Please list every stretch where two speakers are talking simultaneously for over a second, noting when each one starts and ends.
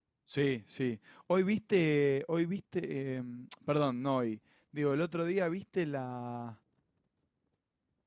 none

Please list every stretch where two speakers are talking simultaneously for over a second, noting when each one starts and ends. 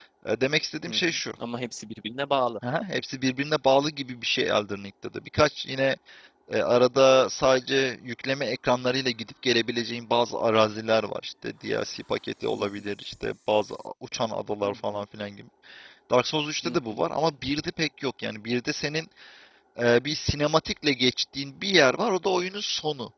none

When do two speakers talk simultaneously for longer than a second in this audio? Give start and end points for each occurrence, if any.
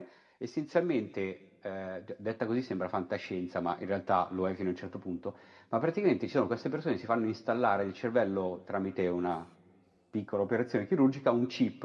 none

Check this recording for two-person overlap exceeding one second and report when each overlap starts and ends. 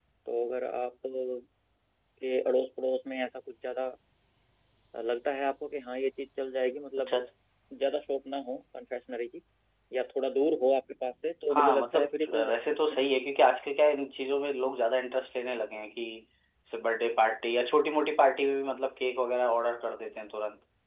11.5-13.1

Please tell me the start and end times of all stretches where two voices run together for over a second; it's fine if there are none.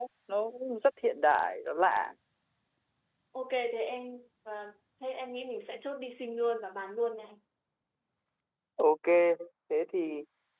none

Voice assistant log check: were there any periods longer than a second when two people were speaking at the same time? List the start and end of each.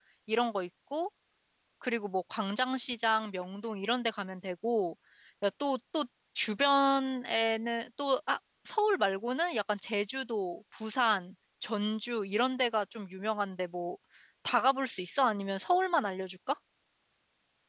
none

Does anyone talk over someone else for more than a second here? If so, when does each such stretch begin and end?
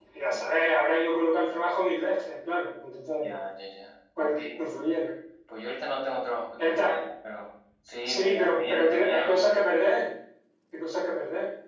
8.1-9.6

